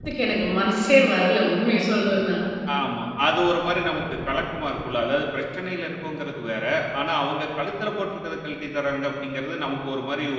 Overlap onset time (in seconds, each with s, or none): none